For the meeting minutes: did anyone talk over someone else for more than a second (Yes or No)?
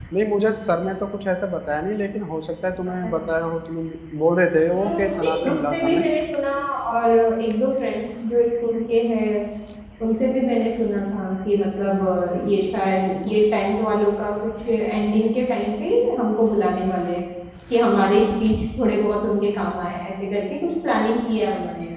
Yes